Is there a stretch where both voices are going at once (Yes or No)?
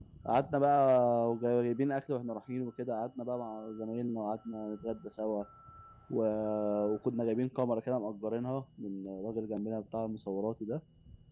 No